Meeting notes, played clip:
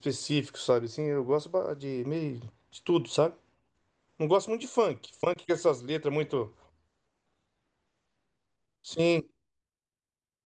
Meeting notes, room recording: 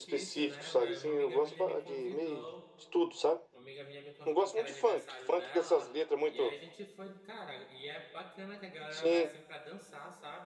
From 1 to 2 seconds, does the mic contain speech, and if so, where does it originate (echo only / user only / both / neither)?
both